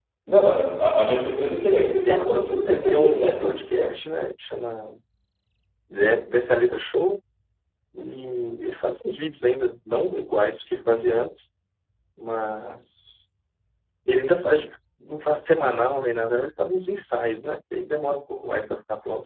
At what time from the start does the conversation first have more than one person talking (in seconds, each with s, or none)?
2.1 s